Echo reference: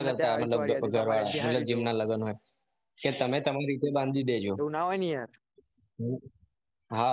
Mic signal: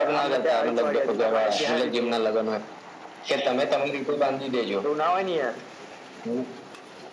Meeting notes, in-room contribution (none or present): none